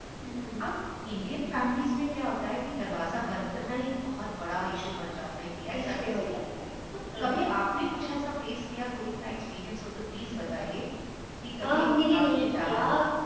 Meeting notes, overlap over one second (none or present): present